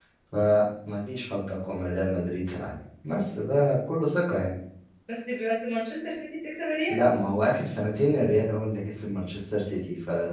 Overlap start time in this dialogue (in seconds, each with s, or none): none